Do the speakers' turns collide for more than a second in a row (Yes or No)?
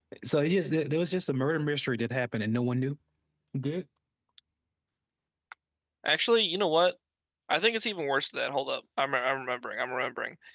No